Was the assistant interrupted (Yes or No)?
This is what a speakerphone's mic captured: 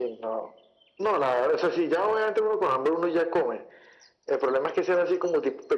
No